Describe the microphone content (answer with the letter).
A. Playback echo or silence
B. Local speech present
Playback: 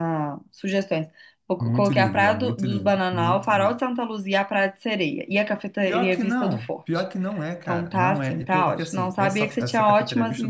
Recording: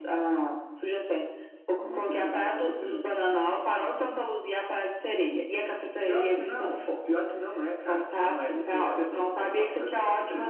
A